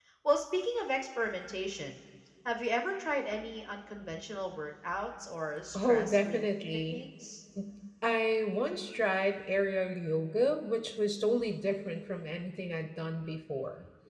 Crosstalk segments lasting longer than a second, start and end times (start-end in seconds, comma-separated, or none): 5.8-7.0